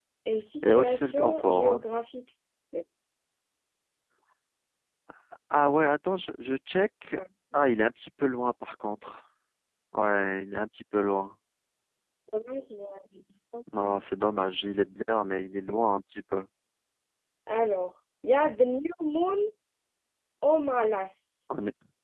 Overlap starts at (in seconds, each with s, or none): 0.6 s